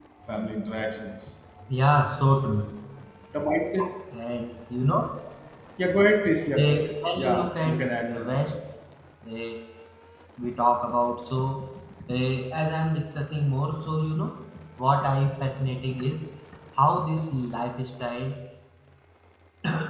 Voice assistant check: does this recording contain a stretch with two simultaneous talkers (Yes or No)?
Yes